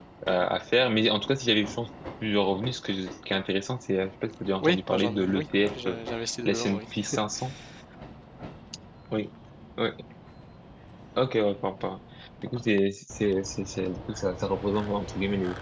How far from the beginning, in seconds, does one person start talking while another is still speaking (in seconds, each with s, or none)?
4.6 s